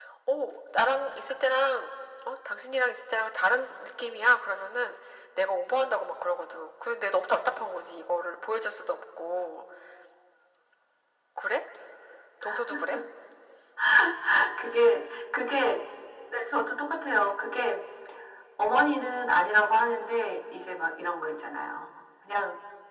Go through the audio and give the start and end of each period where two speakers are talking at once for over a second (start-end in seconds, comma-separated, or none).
none